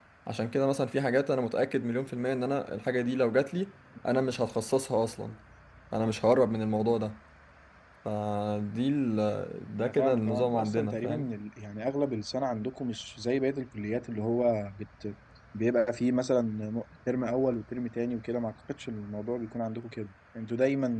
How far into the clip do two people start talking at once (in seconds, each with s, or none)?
9.8 s